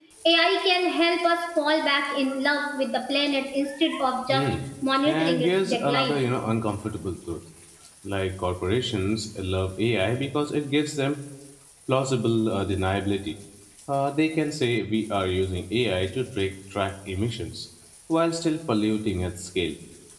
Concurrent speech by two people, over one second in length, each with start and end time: 5.0-6.3

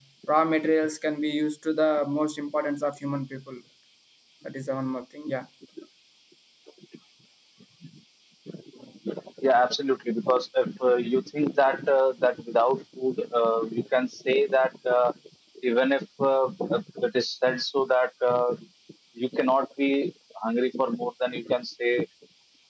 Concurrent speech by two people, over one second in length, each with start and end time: none

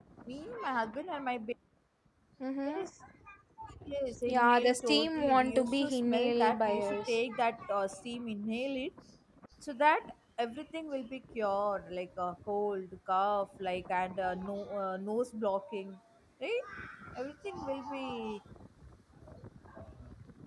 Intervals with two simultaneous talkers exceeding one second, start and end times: 4.3-7.2

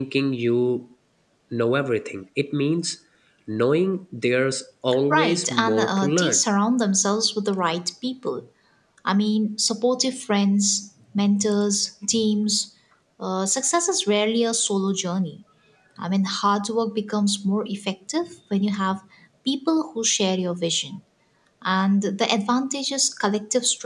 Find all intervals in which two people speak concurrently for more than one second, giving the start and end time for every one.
5.1-6.4

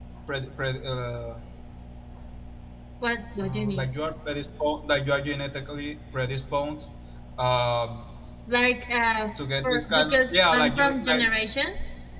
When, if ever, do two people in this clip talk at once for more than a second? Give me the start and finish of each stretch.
9.6-11.2

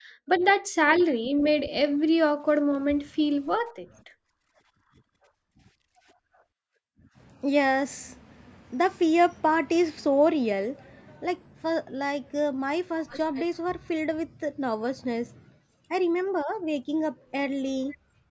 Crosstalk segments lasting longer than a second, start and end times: none

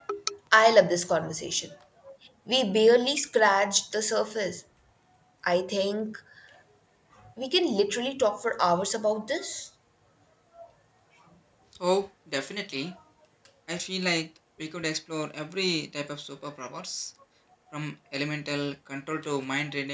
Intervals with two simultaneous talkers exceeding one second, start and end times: none

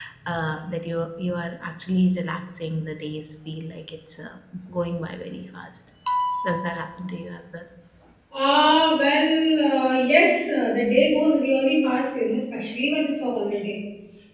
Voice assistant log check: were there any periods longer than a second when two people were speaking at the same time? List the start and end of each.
none

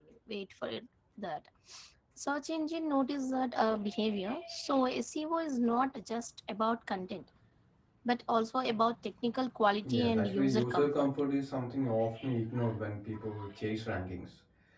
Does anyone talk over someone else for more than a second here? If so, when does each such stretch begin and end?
9.8-11.1

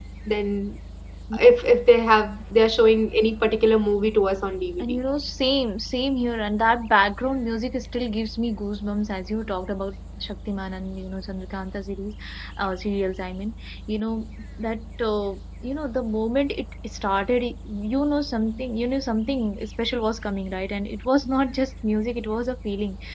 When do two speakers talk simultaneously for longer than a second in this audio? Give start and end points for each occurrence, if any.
none

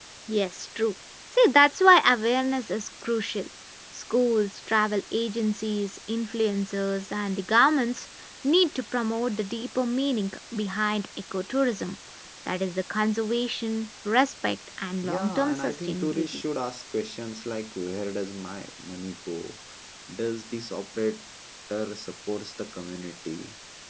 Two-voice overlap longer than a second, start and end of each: 15.0-16.4

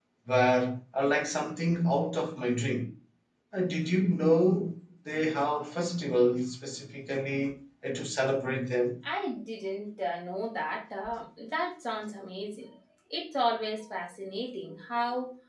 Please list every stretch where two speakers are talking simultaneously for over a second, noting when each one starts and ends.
none

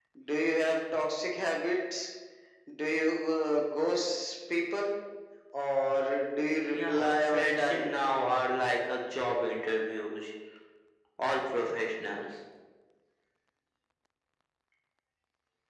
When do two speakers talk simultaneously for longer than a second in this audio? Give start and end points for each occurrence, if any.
6.6-7.9

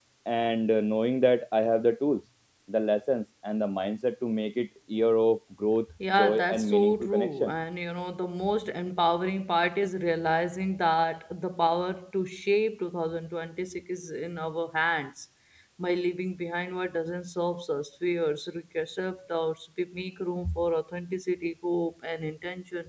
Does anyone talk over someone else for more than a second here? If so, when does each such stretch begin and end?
6.1-7.5

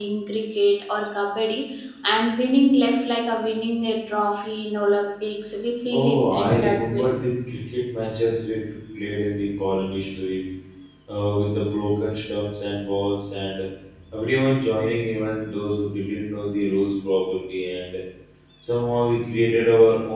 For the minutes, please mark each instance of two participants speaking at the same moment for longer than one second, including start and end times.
5.9-7.1

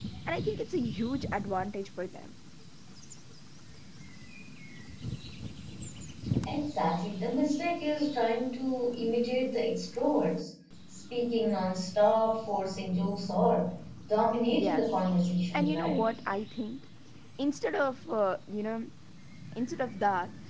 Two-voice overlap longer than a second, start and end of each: none

